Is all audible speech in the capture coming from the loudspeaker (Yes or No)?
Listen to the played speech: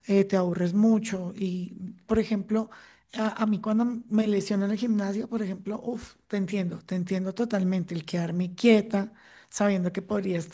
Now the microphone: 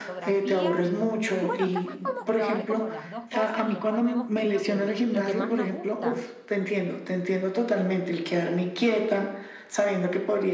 No